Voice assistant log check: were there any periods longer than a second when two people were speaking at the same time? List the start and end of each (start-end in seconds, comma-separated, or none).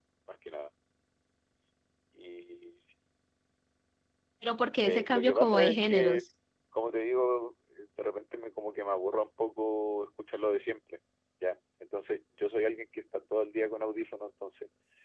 4.8-6.2